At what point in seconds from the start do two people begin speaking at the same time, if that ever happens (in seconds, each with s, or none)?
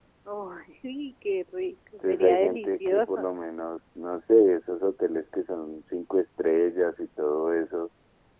2.0 s